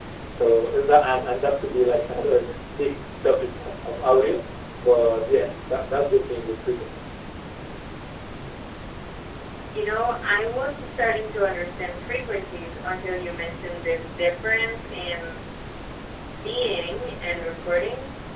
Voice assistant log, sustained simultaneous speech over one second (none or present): none